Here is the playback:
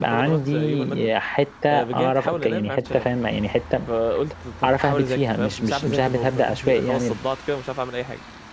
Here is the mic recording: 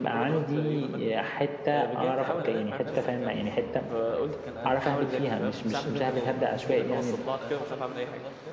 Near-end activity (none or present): present